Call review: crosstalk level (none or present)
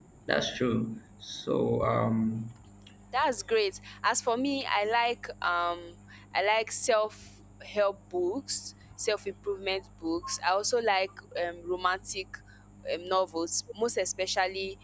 none